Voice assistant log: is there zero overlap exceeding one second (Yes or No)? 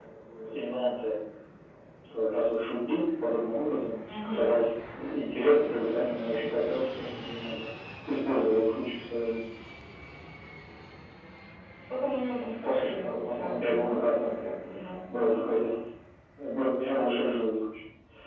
No